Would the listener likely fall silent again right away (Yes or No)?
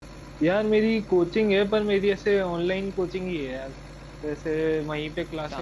Yes